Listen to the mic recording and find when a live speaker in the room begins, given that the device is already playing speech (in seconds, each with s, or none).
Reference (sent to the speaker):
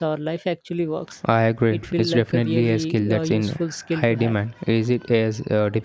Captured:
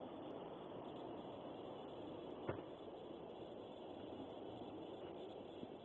none